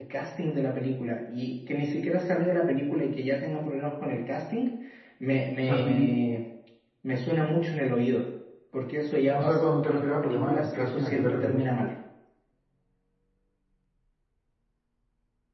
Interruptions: present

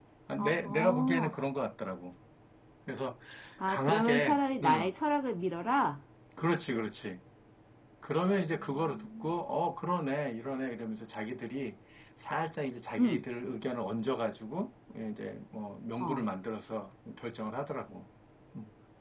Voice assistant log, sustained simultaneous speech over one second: present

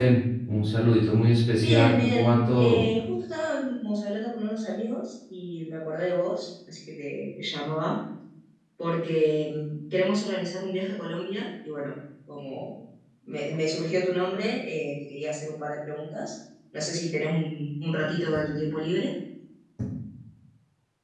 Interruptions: present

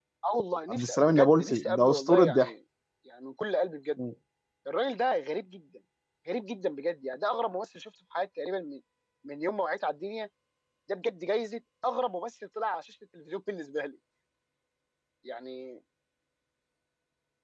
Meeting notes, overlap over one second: present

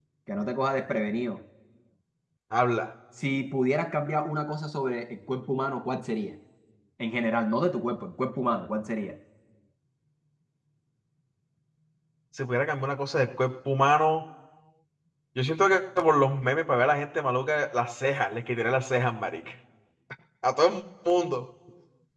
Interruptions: none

